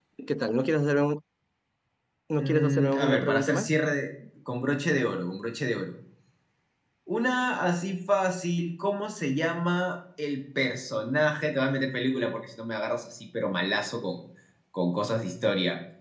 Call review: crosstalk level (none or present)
present